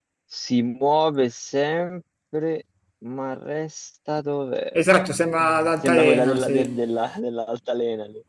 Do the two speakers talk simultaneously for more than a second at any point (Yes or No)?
Yes